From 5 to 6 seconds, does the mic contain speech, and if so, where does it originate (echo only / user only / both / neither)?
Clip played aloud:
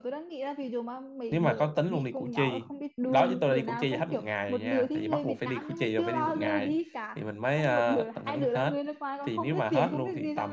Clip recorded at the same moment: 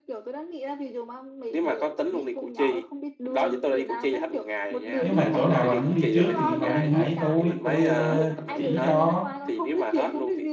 both